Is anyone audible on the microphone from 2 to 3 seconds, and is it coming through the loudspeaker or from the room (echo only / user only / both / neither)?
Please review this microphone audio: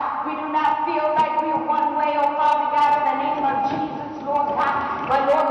echo only